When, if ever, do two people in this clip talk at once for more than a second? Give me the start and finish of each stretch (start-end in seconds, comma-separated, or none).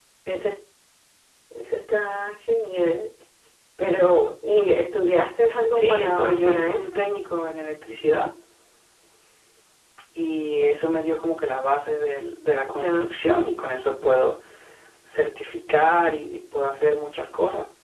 5.7-7.0